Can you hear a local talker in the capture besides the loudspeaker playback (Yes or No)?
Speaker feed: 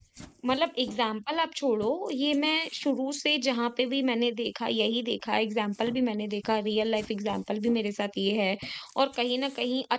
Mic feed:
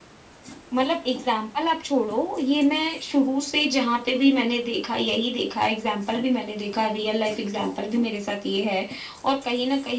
No